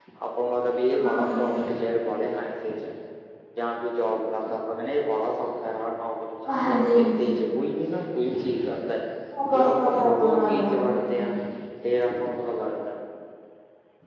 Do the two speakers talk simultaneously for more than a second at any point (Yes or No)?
Yes